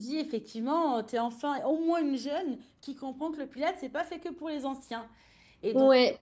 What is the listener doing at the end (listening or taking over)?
listening